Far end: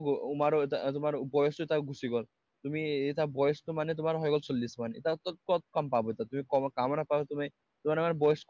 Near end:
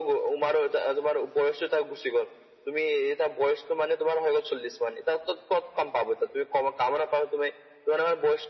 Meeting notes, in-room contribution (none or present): none